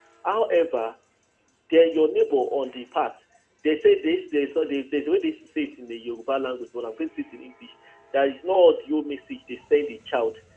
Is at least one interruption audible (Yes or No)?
No